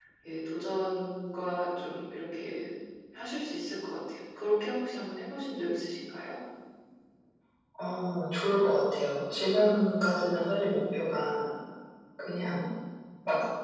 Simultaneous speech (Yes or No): No